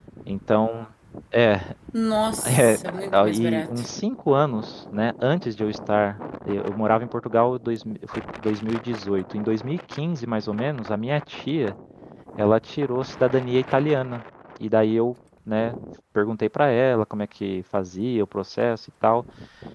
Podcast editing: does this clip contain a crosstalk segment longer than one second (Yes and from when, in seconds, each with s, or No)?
Yes, from 2.4 s